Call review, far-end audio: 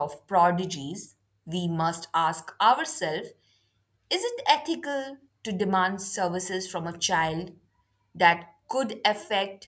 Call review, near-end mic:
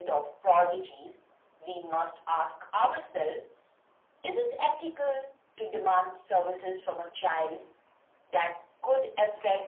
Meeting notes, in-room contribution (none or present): none